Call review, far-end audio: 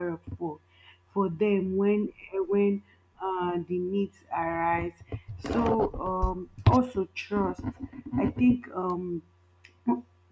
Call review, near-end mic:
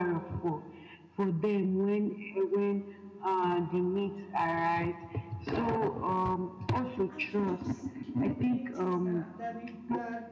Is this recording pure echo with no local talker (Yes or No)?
No